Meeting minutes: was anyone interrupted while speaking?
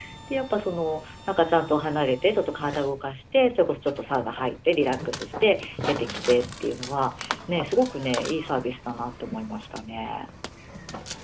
No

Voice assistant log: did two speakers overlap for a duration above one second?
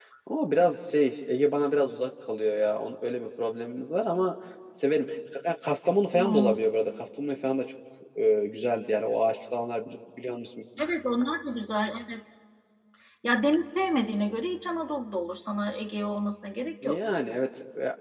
No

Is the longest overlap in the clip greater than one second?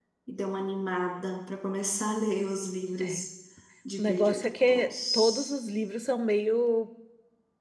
Yes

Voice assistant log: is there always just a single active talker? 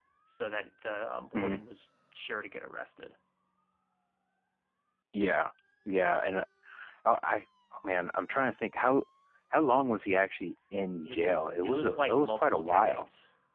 No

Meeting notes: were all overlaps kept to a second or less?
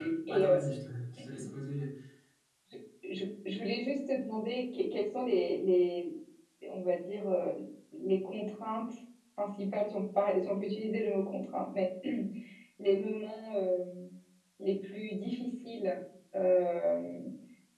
Yes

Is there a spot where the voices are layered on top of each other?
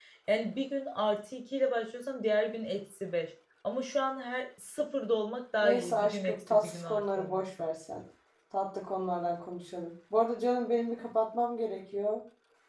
Yes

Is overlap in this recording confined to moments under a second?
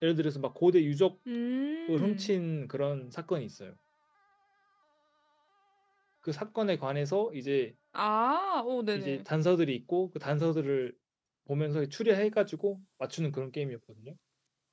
Yes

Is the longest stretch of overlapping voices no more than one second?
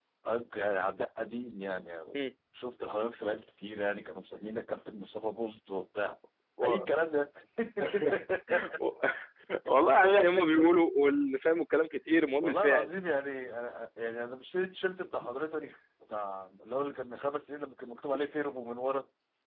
Yes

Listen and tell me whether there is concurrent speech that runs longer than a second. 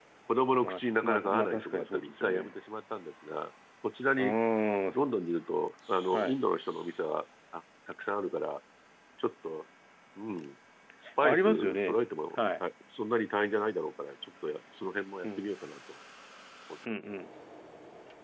Yes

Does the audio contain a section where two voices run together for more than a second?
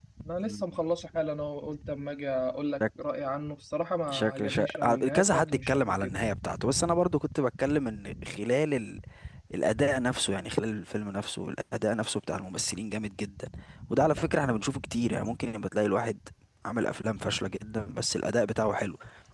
Yes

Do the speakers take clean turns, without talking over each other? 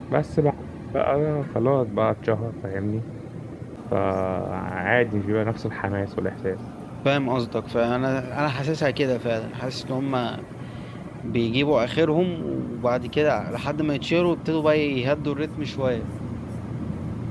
Yes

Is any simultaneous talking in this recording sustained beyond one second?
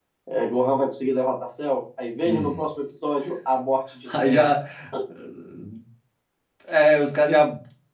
No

